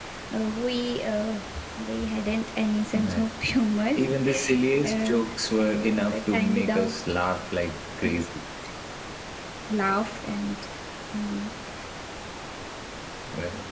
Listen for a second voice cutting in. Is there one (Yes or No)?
Yes